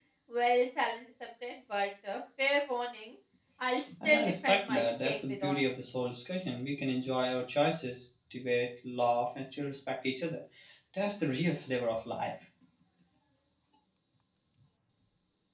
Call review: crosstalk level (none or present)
present